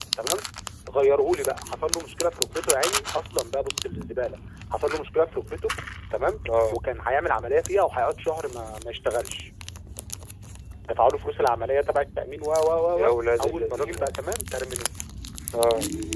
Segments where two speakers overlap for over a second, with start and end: 12.9-14.2

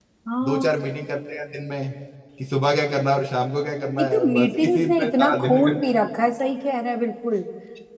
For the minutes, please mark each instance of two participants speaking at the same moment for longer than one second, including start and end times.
4.0-5.8

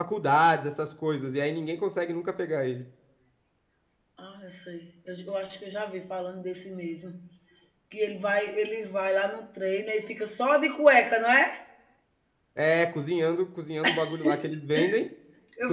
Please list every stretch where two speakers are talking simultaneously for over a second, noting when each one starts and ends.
none

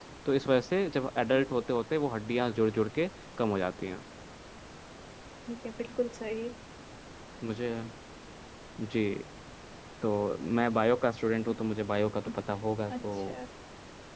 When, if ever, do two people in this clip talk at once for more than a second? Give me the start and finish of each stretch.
none

